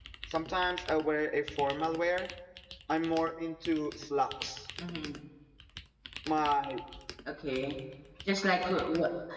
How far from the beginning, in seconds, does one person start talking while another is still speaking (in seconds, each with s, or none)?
none